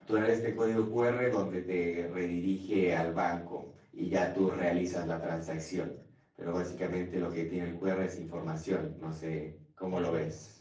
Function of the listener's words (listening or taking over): taking over